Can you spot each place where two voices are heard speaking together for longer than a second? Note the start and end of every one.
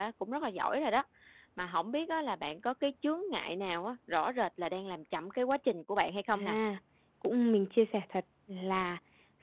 none

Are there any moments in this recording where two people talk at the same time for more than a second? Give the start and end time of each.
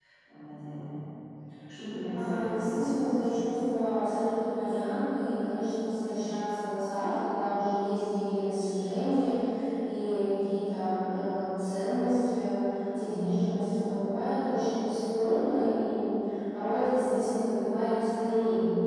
2.1-3.4

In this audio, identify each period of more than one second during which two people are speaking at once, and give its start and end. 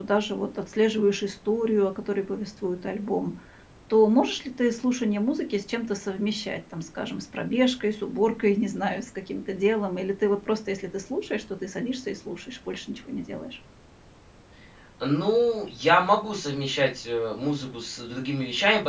none

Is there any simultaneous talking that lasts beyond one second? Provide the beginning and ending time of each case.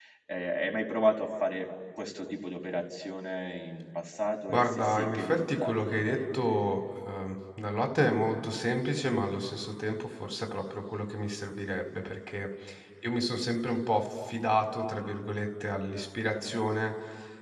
4.5-6.4

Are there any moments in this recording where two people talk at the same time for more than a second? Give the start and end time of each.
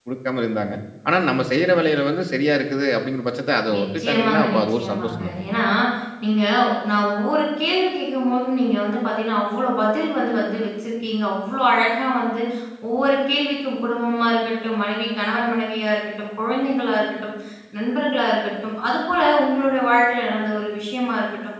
3.8-5.4

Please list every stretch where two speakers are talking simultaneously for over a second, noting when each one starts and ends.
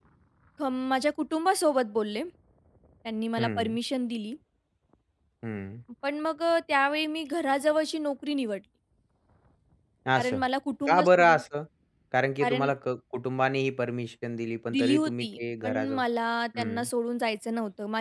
14.7-16.0

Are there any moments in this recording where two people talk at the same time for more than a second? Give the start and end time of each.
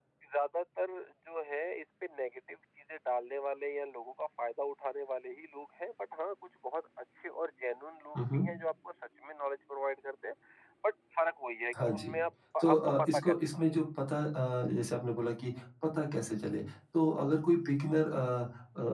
12.6-13.8

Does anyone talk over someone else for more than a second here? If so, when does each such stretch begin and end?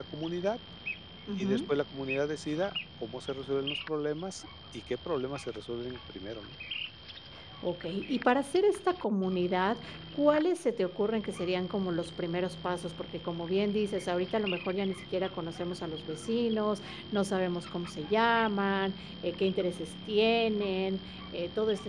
none

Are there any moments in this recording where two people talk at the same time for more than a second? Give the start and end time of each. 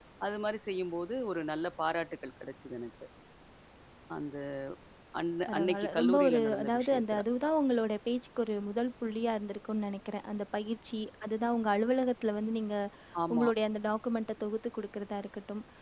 5.5-7.2

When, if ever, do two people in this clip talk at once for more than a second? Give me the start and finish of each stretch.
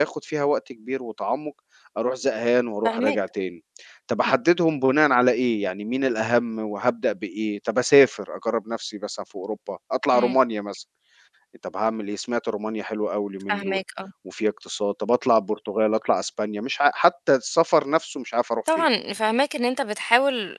none

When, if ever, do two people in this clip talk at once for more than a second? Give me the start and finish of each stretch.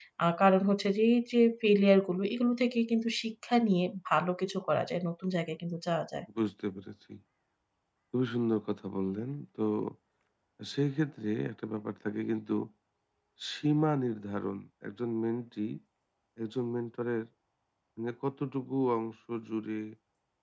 none

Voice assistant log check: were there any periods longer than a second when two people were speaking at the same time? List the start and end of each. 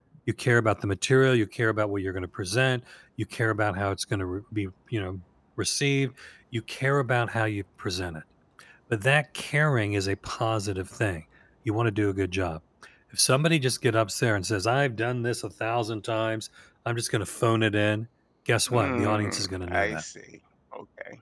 18.7-20.0

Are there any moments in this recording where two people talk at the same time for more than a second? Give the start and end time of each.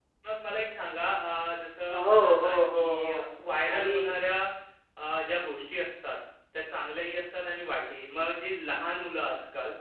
1.9-3.2

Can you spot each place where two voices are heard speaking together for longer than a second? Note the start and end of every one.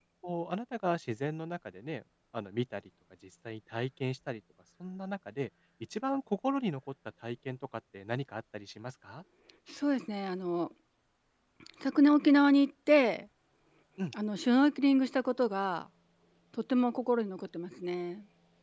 none

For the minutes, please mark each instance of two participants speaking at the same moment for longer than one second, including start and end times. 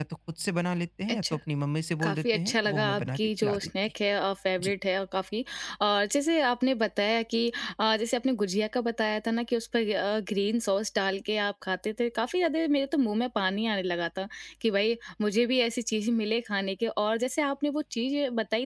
2.0-3.7

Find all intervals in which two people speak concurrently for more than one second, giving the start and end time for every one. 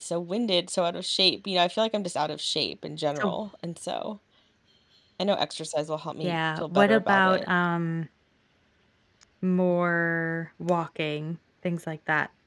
6.2-7.5

